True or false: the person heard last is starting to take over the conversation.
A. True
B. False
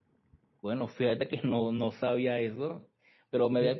B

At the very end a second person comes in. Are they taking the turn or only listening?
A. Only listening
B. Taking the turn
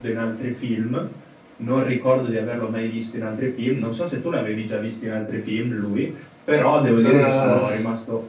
A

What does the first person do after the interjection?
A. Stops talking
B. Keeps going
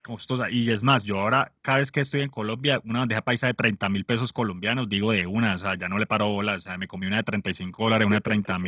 A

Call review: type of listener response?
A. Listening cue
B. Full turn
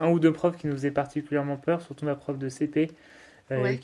A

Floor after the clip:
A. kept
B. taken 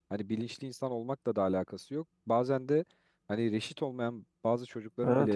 A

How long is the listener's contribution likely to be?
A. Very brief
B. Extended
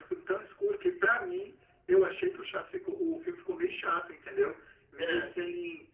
A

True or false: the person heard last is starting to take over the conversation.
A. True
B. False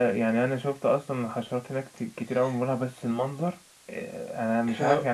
B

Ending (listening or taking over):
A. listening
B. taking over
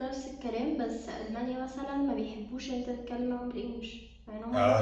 B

